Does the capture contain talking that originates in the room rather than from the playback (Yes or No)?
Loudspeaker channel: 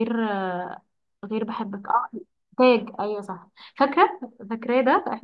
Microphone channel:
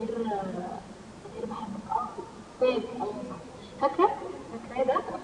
No